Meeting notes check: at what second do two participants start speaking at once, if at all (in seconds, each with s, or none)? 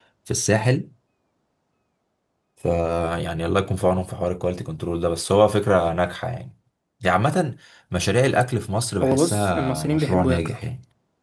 9.0 s